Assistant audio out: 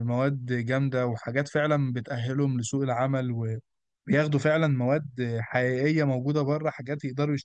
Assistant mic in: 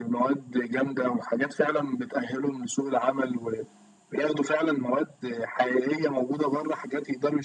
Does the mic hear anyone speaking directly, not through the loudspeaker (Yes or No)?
No